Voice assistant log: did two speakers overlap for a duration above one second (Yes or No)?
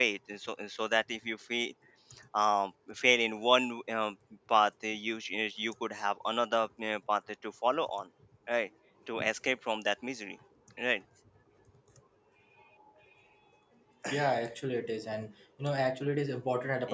No